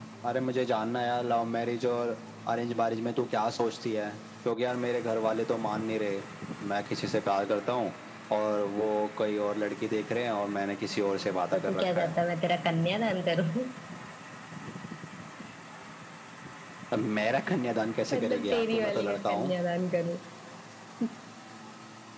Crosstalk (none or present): present